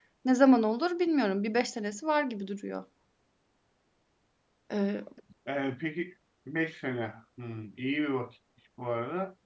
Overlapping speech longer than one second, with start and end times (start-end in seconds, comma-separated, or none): none